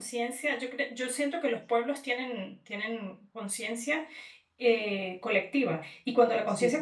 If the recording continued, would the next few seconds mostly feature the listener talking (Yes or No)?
No